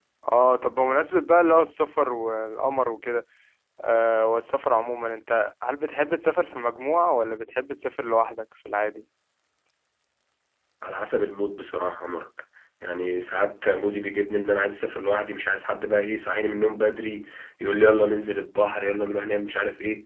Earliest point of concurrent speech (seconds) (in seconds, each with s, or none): none